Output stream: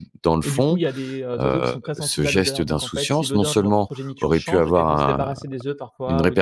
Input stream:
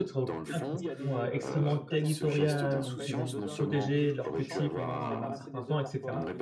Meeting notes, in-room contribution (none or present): present